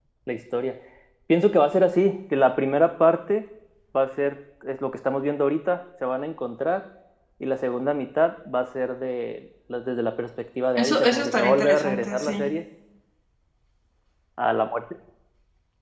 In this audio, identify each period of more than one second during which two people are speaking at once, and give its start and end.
10.8-12.4

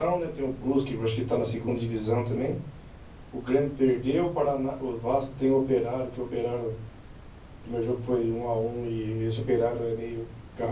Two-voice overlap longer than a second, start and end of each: none

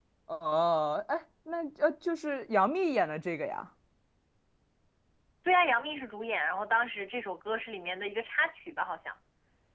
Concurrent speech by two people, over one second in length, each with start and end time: none

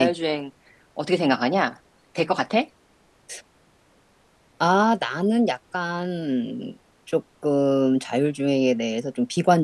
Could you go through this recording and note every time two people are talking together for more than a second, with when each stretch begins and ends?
none

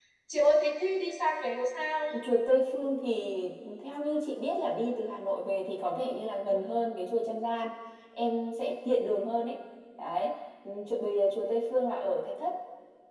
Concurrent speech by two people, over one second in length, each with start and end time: none

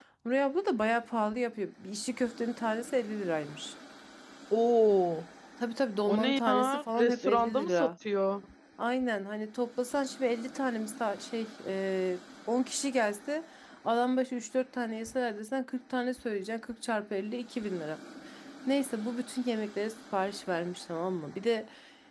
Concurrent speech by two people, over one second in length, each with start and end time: 6.1-7.9

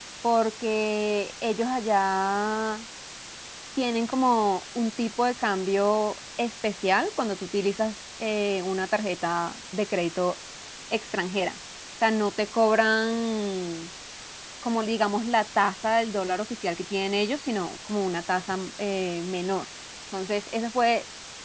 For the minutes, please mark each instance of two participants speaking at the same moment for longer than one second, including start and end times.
none

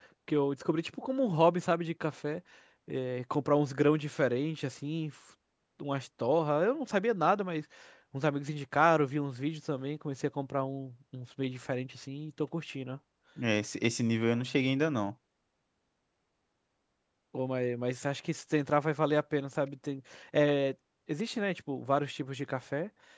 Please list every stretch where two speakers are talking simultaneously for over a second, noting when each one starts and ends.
none

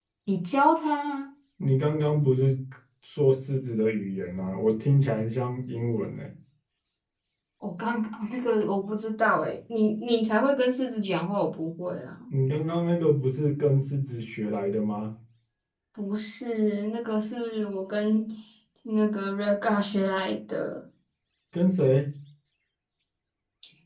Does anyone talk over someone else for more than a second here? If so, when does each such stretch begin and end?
none

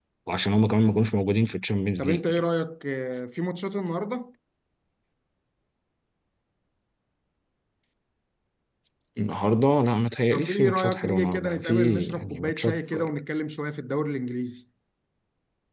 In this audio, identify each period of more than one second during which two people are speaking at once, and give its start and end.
10.3-13.1

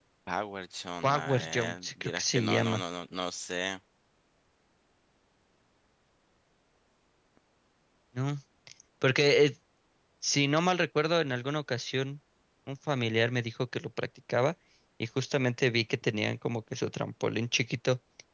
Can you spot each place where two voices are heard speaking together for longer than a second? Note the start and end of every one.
1.0-2.8

